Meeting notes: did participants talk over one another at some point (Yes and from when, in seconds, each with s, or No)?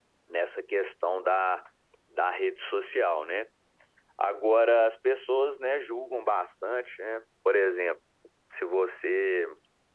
No